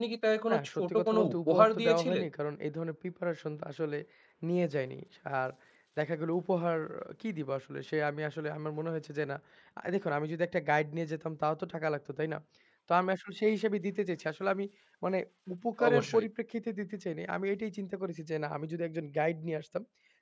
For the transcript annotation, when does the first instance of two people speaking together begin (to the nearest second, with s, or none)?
1 s